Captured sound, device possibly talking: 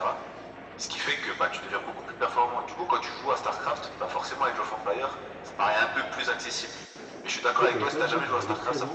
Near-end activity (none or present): present